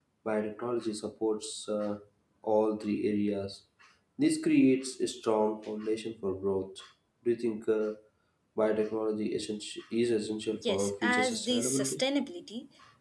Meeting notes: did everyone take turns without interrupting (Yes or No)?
No